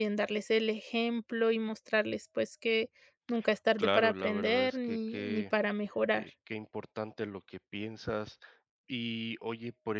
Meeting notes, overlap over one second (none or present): present